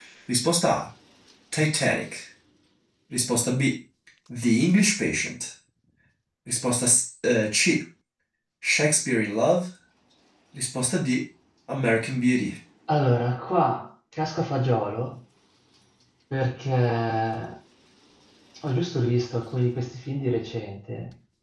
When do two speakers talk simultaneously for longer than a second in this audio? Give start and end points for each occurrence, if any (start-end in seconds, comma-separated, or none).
none